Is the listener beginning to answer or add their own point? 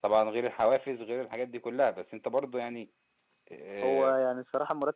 Yes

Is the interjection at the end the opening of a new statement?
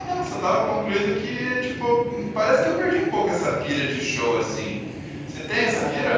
Yes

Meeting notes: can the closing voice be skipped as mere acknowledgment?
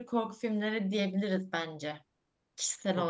No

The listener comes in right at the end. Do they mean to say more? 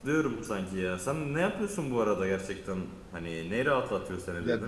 Yes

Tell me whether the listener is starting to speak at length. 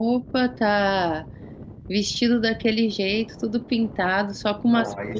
Yes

